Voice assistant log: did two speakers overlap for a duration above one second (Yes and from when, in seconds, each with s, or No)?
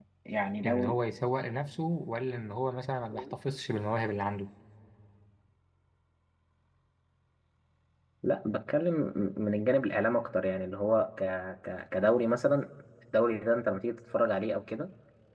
No